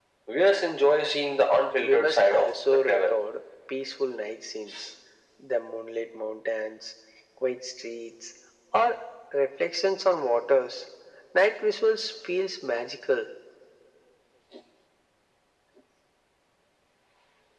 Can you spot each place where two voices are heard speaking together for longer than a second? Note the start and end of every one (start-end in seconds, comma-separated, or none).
1.8-3.1